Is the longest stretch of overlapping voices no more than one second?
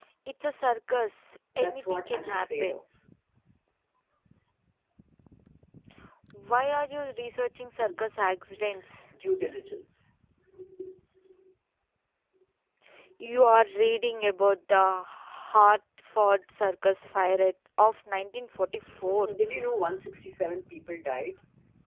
No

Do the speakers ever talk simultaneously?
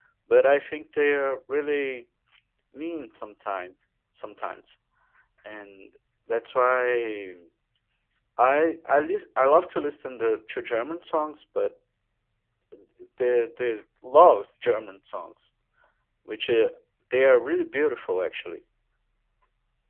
No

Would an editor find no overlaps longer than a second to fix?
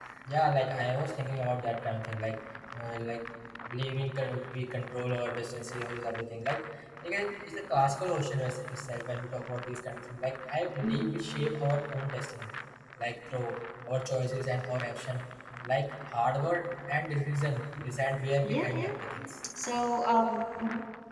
Yes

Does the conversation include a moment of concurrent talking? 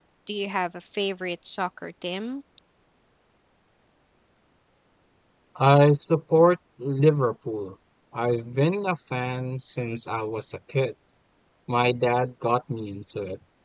No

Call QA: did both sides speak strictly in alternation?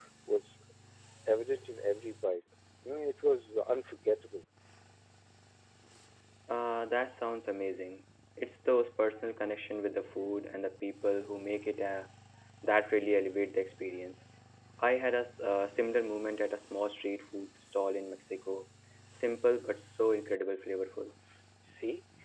Yes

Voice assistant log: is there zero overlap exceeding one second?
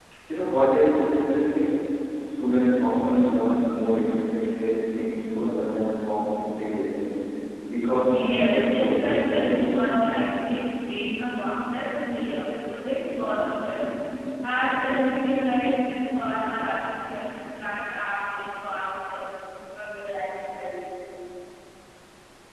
No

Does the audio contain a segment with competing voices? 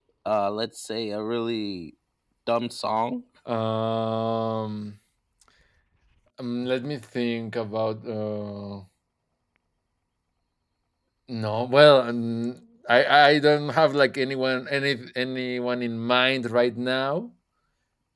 No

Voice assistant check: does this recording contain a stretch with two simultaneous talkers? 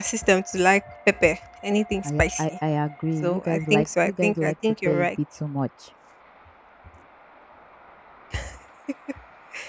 Yes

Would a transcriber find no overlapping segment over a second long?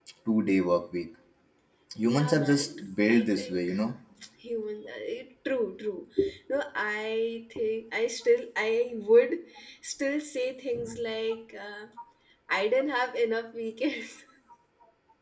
No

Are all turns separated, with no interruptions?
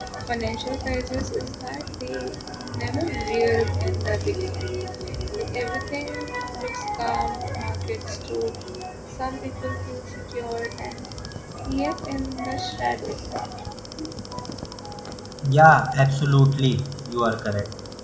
Yes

